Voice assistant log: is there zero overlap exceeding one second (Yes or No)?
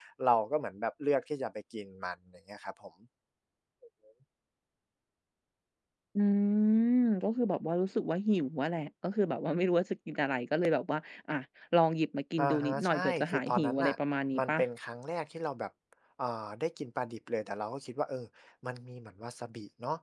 No